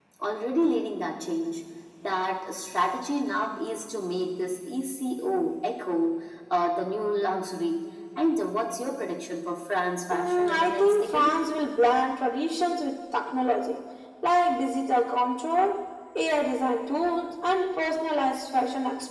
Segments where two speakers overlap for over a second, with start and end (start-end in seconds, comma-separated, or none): 10.1-11.4